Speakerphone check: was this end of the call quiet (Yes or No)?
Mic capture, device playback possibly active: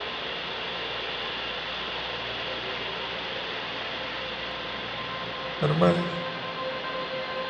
No